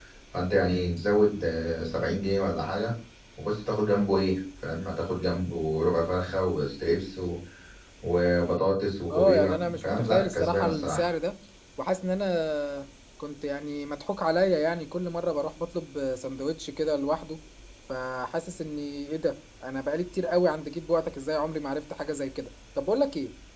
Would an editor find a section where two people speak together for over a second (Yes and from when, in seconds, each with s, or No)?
Yes, from 9.1 s